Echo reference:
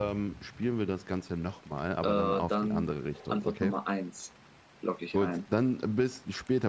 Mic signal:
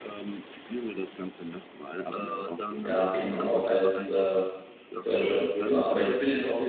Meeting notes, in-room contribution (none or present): present